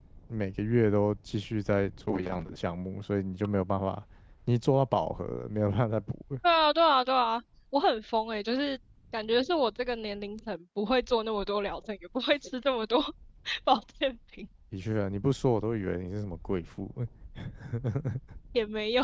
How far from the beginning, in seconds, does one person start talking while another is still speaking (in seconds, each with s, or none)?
none